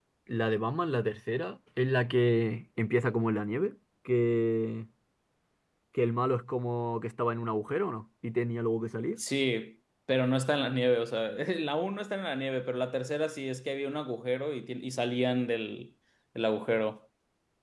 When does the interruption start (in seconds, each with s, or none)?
none